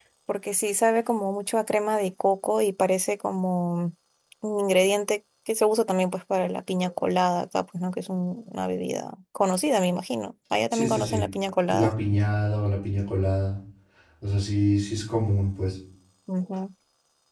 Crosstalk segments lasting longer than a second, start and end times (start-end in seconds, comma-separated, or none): none